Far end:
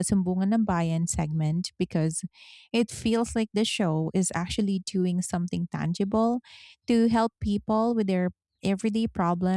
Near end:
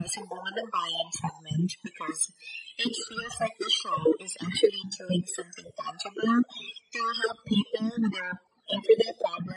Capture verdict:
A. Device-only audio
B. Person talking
A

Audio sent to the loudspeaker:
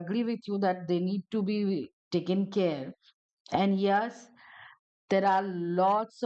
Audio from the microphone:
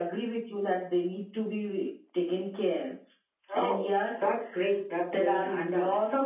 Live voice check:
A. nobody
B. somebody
B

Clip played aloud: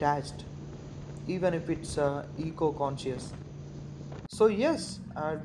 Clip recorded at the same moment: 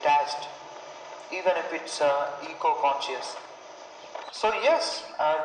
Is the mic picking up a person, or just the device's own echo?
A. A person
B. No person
B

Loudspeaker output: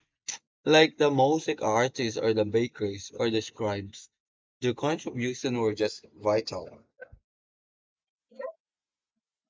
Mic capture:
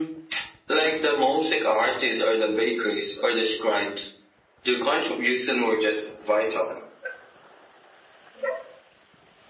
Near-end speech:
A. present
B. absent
B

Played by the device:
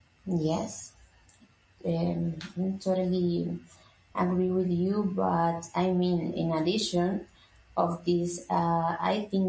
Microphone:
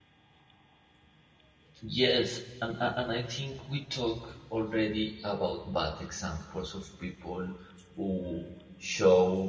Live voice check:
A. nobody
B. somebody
B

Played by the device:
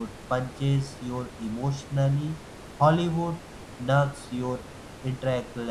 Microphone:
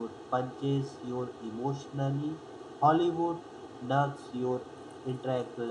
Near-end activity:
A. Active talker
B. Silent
B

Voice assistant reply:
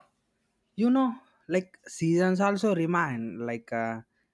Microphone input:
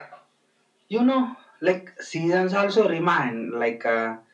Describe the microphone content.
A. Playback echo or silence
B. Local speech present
A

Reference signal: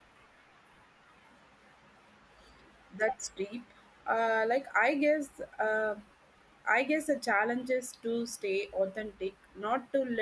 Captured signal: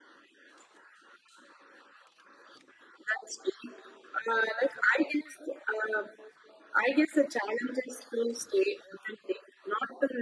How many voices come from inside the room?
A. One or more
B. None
B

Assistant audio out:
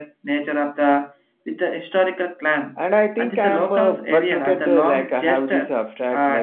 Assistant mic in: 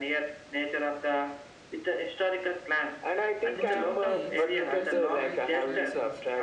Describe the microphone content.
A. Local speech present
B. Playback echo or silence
A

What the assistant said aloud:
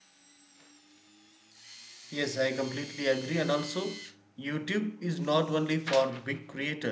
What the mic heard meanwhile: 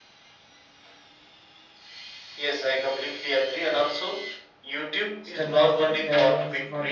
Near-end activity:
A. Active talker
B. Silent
A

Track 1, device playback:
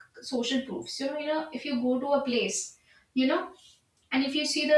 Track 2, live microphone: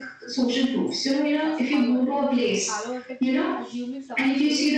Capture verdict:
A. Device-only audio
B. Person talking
B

